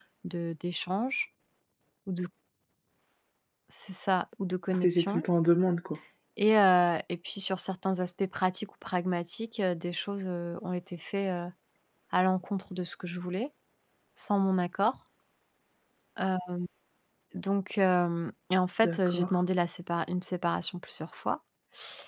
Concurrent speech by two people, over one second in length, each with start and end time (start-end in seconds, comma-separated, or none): none